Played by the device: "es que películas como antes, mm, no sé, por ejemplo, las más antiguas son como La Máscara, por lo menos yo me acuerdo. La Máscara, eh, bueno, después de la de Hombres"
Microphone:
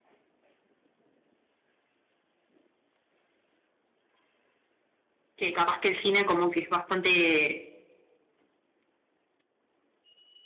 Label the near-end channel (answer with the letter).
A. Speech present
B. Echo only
A